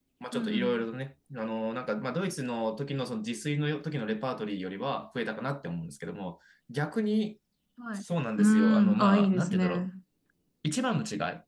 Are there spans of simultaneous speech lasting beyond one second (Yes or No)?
Yes